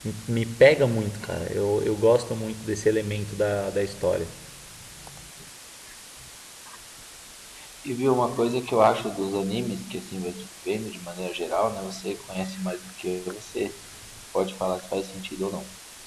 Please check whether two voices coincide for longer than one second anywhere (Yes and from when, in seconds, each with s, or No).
No